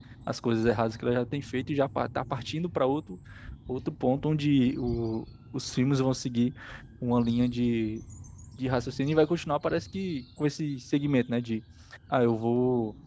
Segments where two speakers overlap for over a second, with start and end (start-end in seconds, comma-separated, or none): none